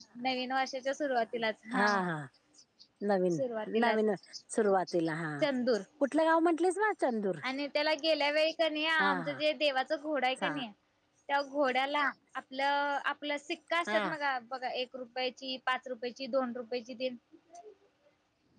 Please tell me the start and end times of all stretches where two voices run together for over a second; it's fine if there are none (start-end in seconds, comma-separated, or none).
none